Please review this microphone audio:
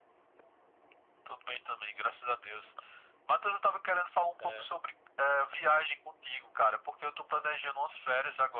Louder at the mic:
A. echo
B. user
A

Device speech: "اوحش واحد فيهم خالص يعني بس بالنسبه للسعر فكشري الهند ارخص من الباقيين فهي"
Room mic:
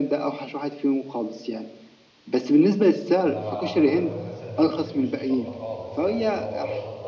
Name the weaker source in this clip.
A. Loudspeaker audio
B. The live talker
B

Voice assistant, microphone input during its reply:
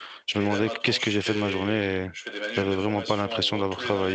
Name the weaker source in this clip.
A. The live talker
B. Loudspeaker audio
B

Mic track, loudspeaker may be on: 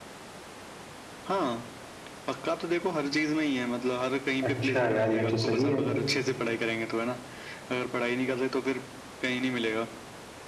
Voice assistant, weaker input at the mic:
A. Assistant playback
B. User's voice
A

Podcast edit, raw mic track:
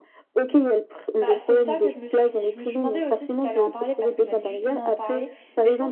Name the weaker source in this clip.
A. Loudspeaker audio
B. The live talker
B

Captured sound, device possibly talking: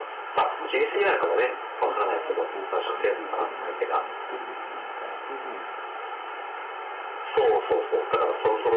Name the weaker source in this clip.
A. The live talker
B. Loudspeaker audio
A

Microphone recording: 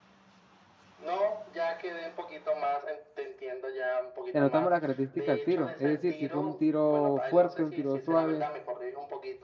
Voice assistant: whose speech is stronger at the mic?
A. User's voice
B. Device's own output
A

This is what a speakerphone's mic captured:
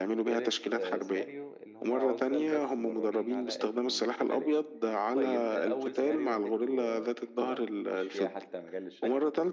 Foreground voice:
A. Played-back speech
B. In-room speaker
A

